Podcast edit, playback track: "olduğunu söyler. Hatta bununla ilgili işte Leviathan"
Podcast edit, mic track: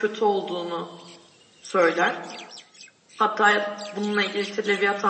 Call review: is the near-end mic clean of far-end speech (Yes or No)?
No